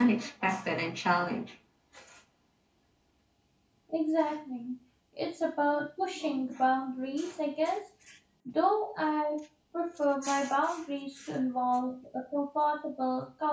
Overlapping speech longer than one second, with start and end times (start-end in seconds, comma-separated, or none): none